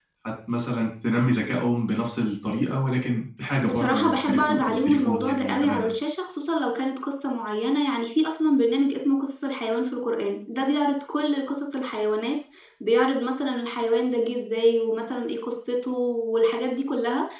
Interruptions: present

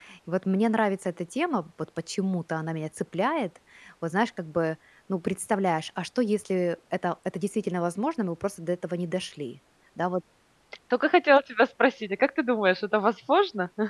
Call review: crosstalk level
none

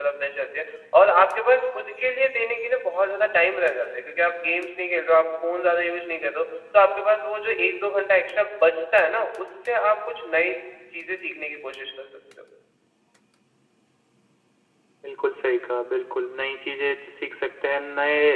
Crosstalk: none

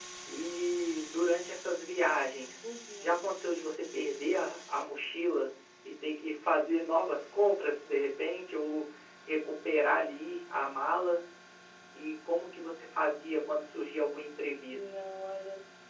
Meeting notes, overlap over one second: none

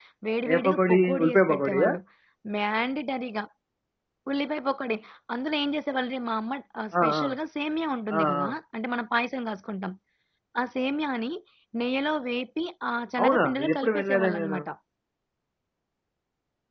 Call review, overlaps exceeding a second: present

